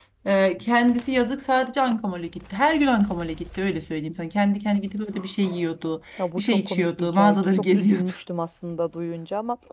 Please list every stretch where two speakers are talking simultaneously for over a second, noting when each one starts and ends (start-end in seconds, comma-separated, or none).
6.2-8.1